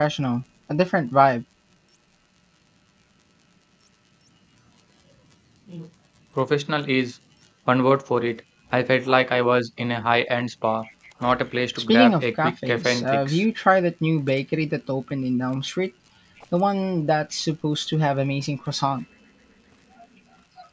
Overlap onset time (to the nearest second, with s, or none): 12 s